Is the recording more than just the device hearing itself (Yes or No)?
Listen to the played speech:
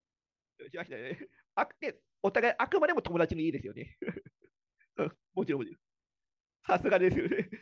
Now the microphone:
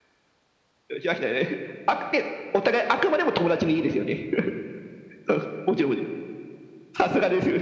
No